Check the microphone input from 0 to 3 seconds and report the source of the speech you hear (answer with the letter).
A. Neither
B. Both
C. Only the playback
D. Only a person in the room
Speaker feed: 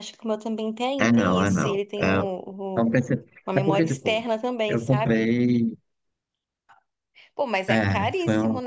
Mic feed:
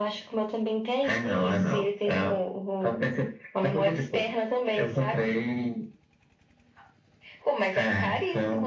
C